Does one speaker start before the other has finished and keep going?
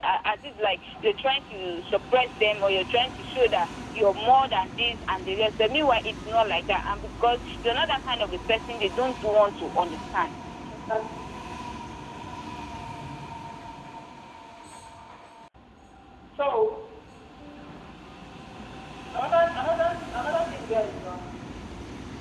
No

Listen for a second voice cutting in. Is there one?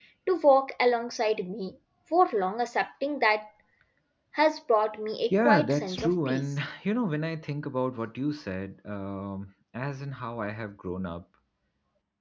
Yes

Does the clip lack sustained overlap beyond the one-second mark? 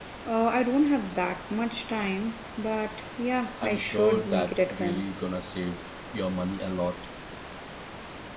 No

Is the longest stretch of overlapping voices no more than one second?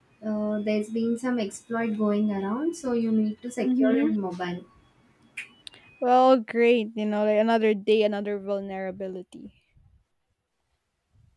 Yes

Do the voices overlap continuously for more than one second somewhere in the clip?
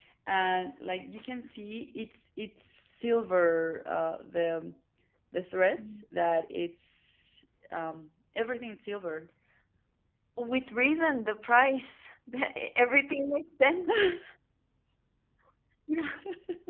No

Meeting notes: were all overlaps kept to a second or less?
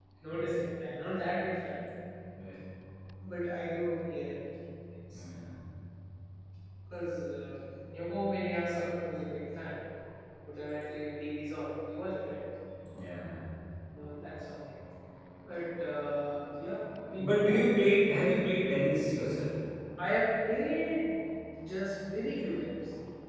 Yes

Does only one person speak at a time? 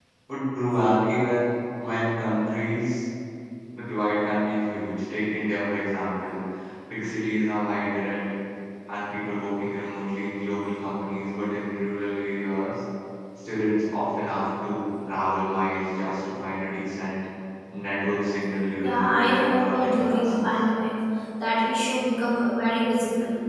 No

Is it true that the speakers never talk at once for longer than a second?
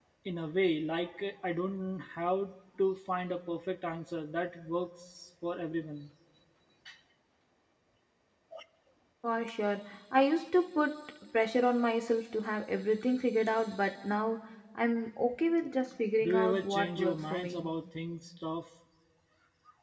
No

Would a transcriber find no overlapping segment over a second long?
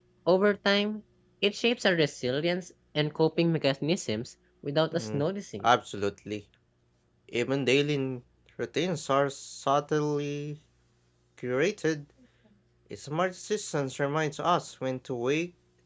Yes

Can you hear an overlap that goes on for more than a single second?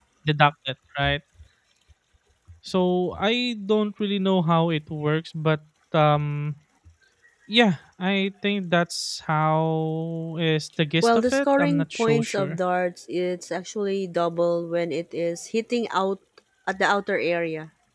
Yes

